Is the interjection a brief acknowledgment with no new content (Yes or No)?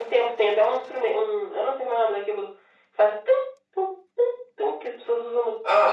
No